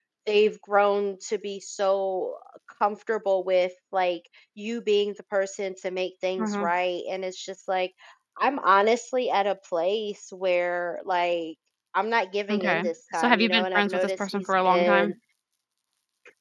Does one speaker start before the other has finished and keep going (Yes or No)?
Yes